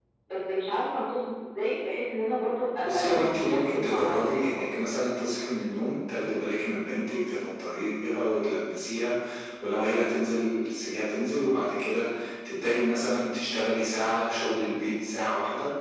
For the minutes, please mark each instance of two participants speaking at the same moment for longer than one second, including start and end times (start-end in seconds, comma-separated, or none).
2.8-4.8